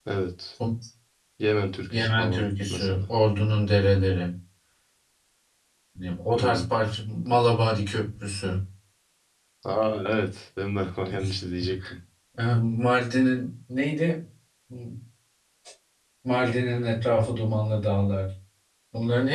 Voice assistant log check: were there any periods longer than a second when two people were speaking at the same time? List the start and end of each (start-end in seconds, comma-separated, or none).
1.9-3.1